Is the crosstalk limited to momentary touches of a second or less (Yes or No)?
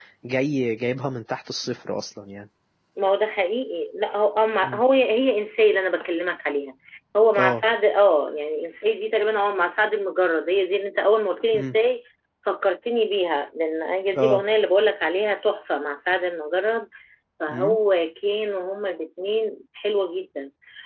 Yes